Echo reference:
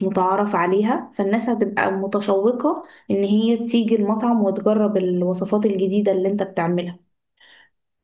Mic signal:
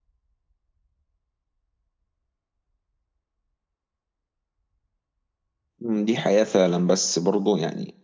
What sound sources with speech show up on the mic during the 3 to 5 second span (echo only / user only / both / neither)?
neither